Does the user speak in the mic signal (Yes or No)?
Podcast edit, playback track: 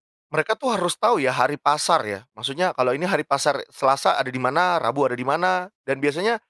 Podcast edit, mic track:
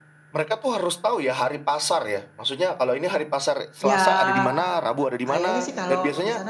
Yes